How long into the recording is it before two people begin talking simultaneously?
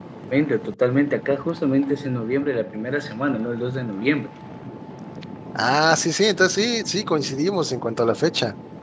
none

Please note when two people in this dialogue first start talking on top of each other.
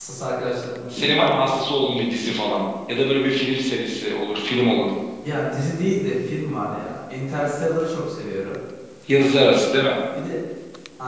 none

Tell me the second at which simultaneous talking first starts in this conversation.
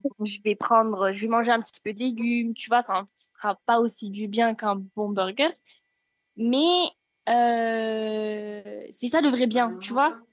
none

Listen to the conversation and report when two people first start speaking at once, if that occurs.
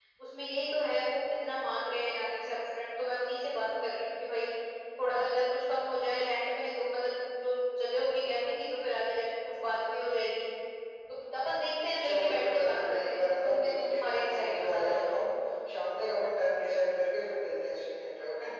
12.0 s

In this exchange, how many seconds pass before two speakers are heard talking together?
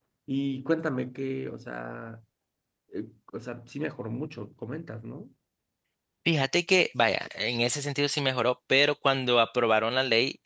none

